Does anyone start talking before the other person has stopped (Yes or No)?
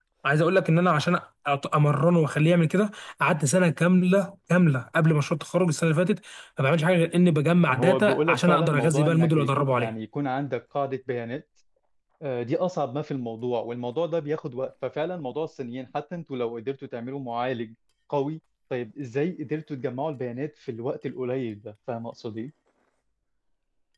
Yes